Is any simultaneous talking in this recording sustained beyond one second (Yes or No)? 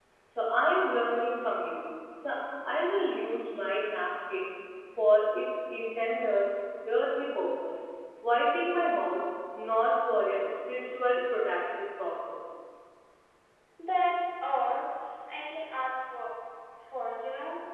No